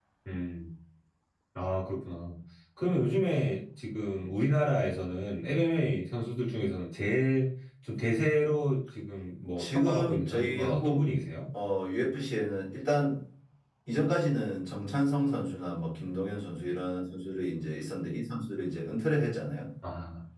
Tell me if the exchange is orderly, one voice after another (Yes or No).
No